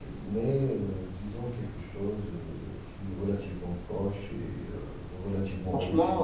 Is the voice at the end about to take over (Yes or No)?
No